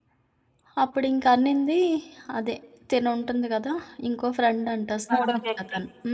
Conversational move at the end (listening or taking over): listening